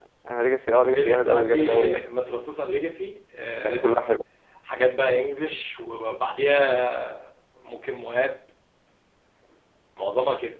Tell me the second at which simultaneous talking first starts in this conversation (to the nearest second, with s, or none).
1 s